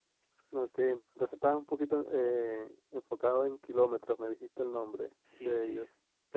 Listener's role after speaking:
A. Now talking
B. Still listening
A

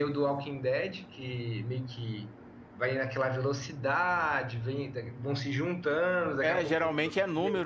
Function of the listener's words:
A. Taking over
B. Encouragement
A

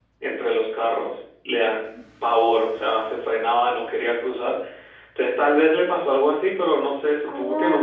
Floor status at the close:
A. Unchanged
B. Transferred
B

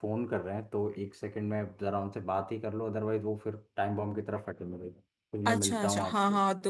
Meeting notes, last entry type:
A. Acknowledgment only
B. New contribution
B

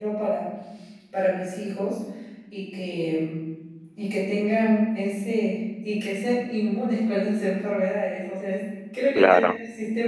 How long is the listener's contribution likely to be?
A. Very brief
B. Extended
A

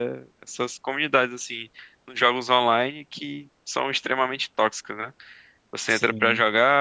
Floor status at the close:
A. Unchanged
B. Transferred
A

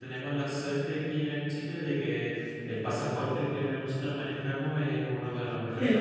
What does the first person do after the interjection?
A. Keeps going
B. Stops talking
A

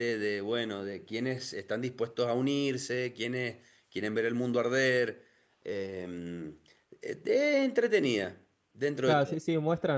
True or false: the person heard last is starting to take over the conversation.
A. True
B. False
A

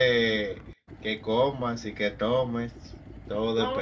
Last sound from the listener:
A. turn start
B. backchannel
A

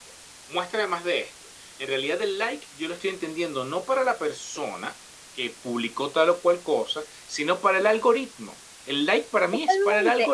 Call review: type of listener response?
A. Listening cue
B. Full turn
B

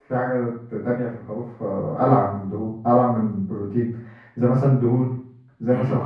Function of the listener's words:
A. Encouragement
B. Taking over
A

